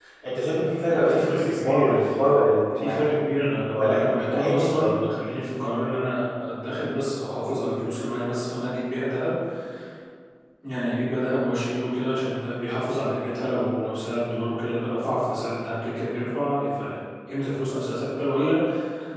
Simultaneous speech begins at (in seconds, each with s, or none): 0.9 s